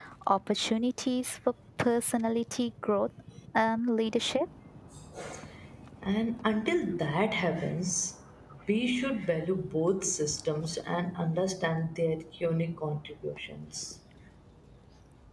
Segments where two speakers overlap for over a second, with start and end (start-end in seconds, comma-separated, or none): none